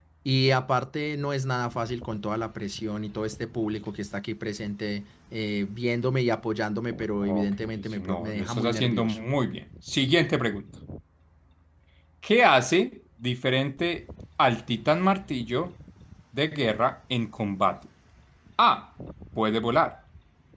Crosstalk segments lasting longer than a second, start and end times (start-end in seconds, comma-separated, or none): 7.2-9.2